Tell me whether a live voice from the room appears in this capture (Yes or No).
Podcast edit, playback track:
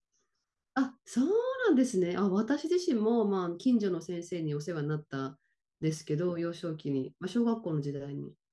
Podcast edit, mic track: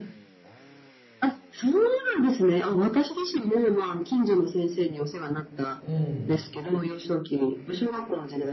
Yes